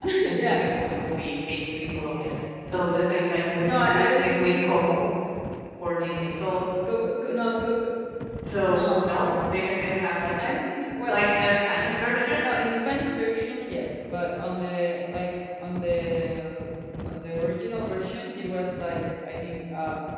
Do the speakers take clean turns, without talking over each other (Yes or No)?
No